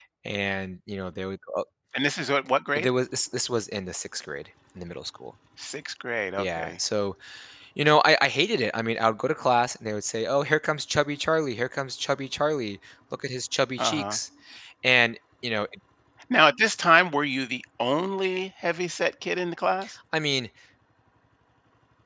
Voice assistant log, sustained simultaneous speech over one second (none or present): none